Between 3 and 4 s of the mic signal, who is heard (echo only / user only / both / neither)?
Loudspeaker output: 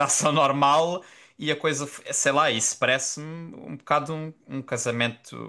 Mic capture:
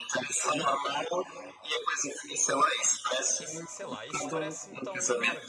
both